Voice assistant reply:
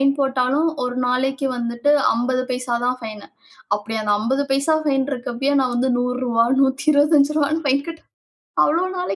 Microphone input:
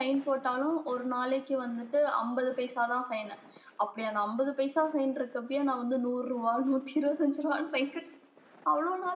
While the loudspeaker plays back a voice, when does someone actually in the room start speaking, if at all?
none

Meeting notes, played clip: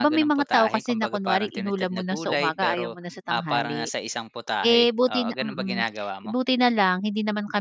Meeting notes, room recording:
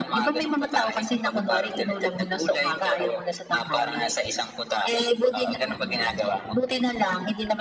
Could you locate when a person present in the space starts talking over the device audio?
none

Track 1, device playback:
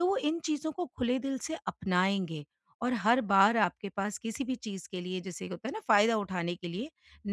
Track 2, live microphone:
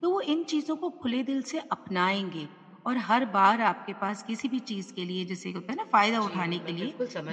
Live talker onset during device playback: 6.2 s

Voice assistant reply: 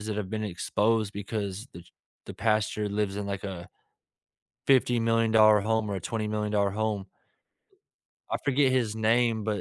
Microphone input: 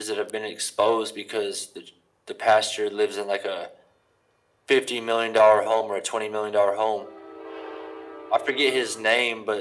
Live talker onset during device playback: none

